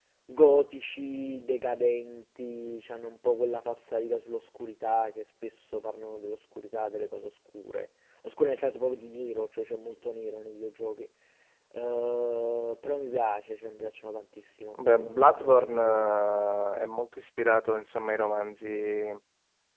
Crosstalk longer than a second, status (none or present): present